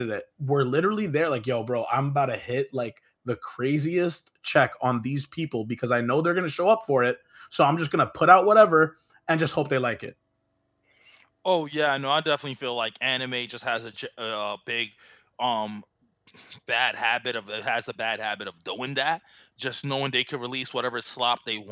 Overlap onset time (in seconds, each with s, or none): none